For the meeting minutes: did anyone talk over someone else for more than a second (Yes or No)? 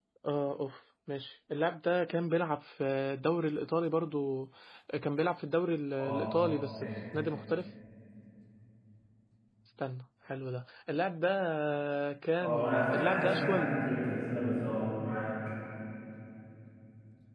Yes